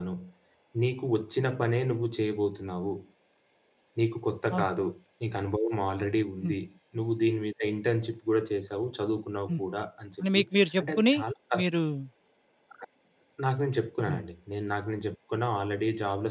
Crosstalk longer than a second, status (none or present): none